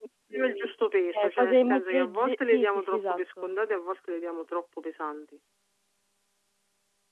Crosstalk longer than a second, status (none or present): present